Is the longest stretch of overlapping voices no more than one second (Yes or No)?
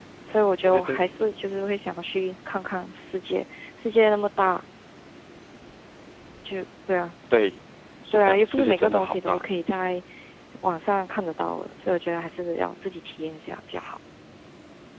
No